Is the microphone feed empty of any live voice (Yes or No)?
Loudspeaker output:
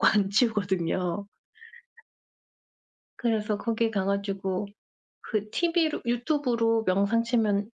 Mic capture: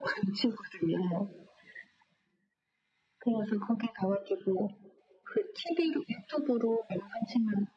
Yes